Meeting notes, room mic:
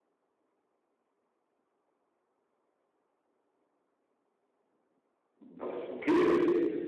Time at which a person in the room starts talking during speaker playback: 5 s

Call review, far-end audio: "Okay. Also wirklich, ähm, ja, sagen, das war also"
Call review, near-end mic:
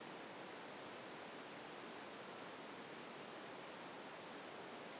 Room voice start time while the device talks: none

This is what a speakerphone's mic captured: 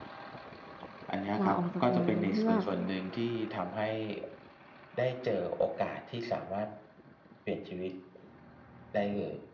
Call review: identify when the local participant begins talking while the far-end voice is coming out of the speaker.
1 s

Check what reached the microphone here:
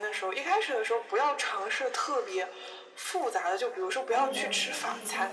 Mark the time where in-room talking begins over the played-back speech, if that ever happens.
4 s

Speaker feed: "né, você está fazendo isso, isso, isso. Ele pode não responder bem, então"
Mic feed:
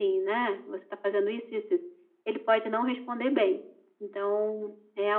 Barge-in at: none

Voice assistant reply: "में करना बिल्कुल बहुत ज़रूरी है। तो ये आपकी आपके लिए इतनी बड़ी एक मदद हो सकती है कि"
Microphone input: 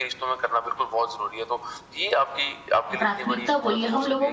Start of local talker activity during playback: 3 s

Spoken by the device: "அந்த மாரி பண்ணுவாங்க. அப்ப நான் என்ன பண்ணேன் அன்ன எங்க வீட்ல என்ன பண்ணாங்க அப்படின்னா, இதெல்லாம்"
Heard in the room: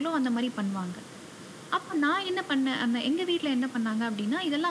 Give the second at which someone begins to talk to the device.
none

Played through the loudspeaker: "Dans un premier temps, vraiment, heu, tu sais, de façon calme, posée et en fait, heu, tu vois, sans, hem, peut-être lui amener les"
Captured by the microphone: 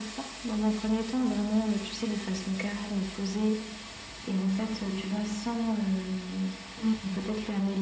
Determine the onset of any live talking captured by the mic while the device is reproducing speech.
7 s

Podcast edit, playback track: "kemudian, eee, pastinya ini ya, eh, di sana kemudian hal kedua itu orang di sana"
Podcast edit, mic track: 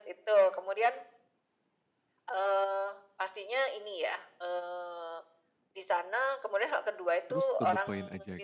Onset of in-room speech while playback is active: 7 s

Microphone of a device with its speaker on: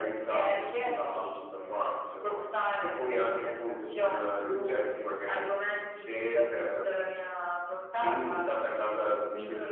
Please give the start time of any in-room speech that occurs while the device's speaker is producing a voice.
none

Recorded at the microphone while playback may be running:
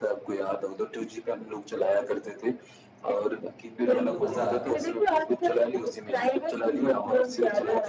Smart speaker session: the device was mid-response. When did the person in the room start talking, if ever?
4 s

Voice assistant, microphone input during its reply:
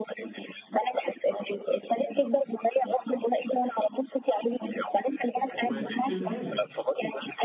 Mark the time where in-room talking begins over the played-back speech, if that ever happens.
6 s

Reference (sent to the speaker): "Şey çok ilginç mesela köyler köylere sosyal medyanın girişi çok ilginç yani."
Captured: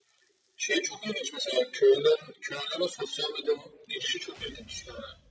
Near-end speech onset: none

